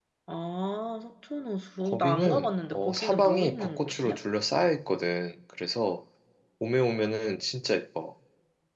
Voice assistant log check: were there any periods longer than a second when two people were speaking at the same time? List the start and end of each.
1.8-4.2

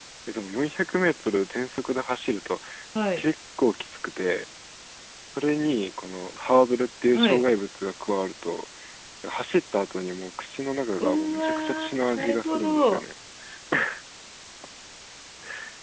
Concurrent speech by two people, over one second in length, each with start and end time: 11.0-13.0

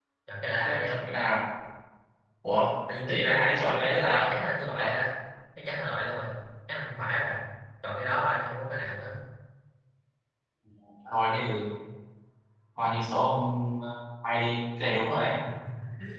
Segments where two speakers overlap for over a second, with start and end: 3.1-4.3

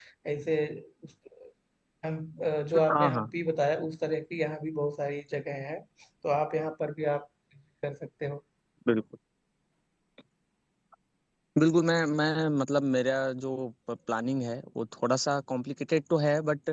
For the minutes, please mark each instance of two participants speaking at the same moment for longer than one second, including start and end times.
none

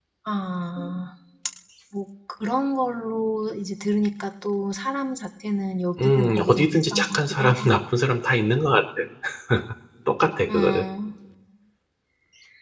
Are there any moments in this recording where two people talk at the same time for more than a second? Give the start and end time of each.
6.0-7.7

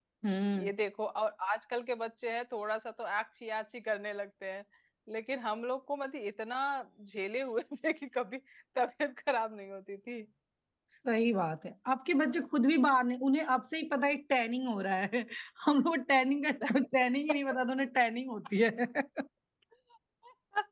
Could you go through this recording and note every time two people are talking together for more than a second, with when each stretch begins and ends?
none

